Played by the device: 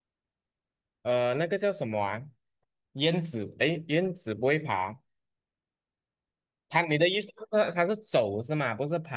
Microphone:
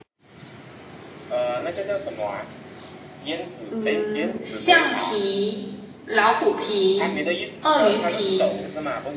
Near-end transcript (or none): 嗯，橡皮、老虎皮、鳄鱼皮